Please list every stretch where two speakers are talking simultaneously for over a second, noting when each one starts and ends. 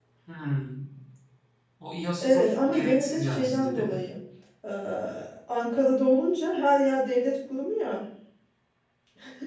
2.2-4.0

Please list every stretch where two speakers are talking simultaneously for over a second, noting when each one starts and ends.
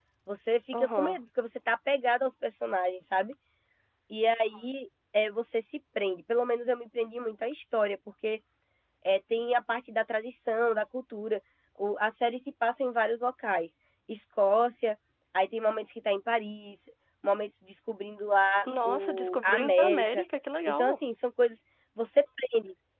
18.8-20.2

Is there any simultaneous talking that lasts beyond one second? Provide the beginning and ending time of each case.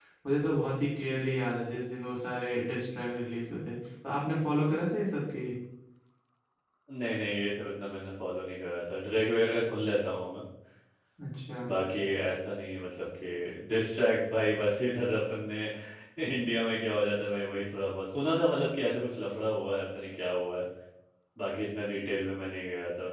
none

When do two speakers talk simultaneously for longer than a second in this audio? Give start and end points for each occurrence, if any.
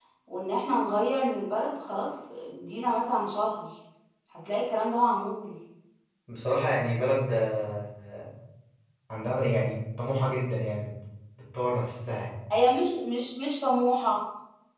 none

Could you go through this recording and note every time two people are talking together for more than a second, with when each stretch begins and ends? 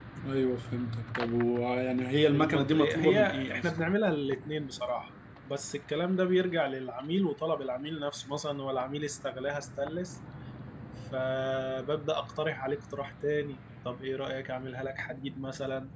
2.3-3.7

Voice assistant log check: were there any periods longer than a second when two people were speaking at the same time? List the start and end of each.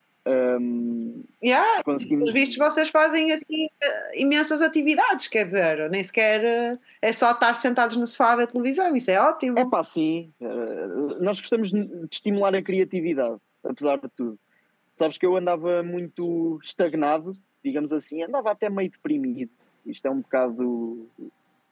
none

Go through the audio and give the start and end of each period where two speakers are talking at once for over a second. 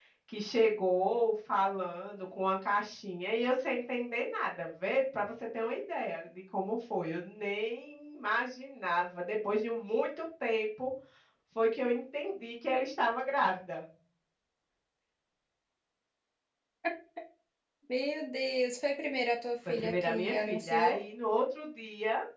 19.6-21.0

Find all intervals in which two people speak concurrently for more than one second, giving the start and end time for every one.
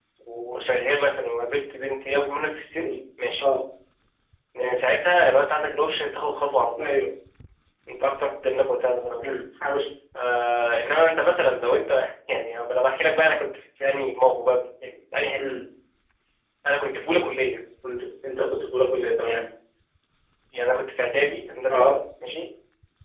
none

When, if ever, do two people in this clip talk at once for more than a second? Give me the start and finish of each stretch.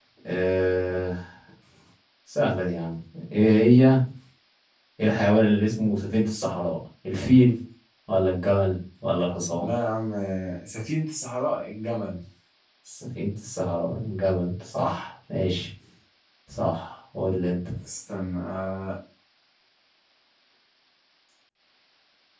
none

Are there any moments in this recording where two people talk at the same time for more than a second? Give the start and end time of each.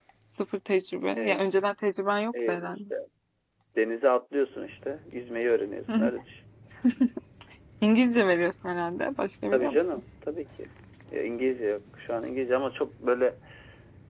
none

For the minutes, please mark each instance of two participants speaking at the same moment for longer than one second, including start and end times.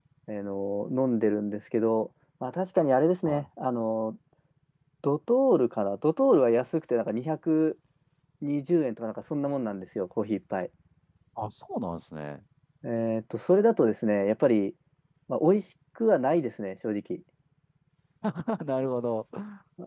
none

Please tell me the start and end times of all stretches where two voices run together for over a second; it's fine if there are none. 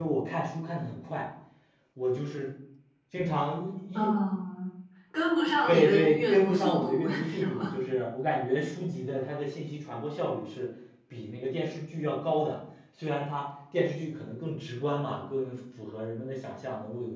5.7-7.7

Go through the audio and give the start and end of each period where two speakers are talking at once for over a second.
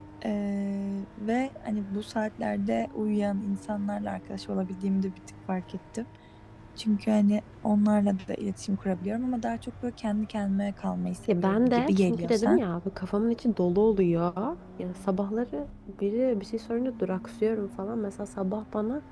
11.3-12.6

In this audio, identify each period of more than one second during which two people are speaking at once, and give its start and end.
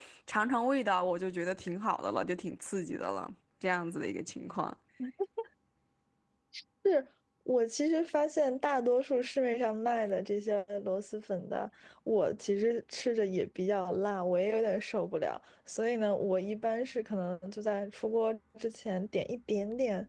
none

